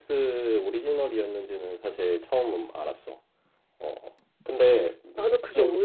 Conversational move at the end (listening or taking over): taking over